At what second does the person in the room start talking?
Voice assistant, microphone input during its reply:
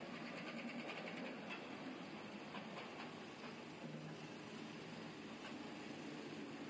none

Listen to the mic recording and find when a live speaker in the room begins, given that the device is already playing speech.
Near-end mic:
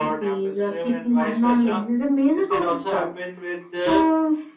none

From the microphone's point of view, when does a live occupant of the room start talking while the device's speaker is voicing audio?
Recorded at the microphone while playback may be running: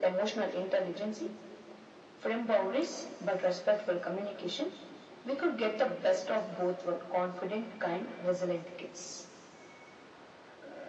none

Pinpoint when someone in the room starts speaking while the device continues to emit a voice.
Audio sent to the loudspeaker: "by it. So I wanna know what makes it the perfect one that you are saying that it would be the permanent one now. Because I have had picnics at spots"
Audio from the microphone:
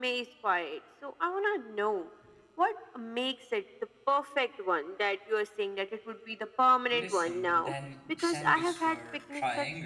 6.9 s

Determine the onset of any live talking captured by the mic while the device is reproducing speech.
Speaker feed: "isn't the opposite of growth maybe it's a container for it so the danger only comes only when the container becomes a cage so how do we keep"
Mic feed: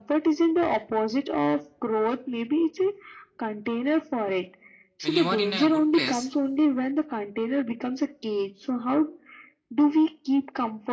5.0 s

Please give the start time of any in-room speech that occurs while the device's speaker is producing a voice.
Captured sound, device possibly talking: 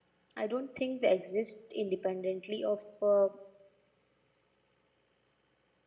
0.4 s

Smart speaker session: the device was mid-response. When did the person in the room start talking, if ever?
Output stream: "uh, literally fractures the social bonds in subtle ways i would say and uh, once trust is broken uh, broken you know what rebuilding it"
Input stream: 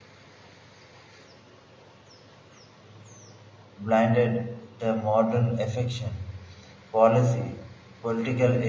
3.8 s

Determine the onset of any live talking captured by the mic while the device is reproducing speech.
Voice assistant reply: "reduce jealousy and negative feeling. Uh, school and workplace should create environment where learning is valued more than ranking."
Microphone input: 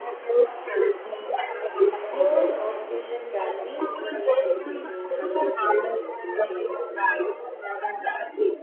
1.9 s

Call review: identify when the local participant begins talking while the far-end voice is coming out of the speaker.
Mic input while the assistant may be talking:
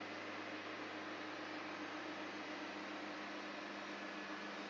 none

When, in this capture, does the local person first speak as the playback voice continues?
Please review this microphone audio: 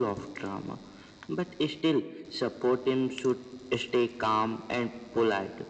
none

